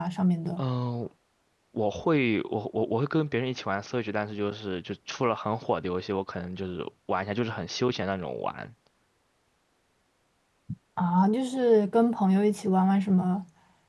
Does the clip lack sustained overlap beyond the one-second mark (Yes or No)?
Yes